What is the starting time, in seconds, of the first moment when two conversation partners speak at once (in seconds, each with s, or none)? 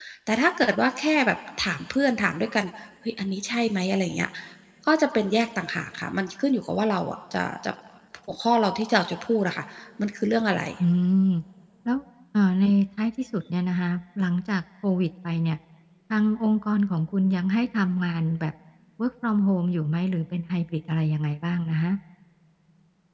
none